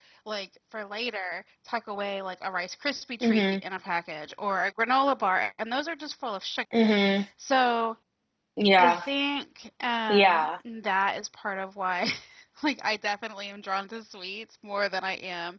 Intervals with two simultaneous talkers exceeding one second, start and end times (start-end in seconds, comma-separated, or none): none